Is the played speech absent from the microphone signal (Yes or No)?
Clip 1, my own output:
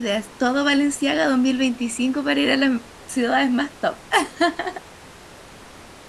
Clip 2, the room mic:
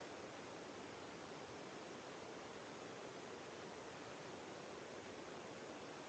Yes